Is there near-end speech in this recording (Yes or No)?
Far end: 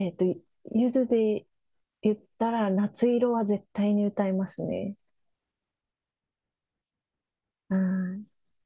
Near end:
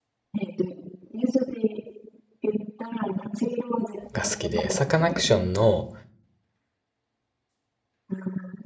Yes